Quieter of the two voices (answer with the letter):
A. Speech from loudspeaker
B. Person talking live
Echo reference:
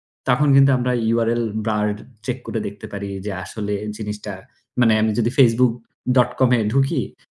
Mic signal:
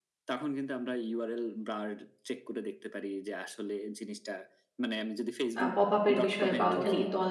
A